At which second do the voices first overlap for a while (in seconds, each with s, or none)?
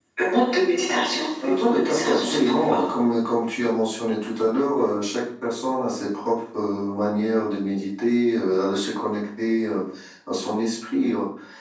1.4 s